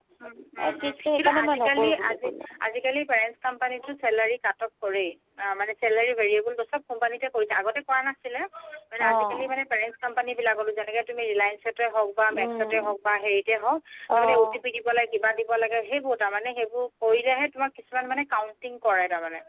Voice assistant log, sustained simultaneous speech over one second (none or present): present